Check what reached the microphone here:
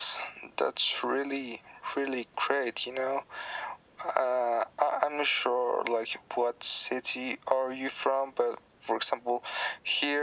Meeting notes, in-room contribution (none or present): none